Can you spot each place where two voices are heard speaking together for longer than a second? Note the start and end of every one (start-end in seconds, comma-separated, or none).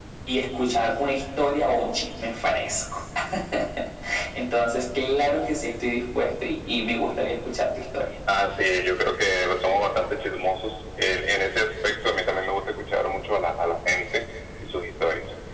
none